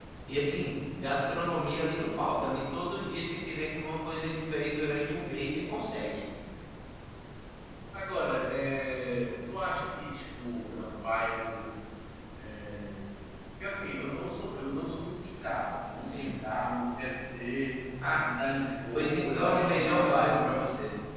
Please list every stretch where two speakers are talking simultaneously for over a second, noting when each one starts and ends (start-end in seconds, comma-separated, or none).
18.9-20.6